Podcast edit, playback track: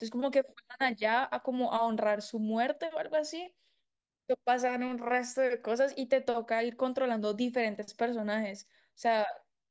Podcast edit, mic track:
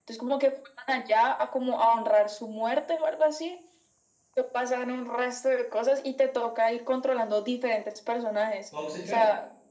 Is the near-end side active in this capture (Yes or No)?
Yes